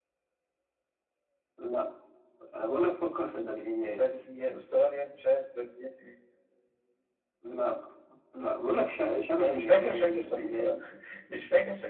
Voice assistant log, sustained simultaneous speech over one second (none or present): present